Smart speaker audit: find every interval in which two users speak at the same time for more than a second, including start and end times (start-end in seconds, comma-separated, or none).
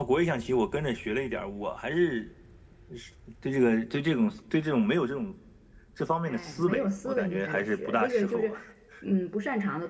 6.3-8.5